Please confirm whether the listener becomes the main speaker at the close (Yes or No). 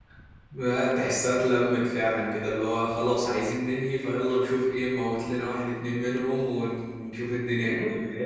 Yes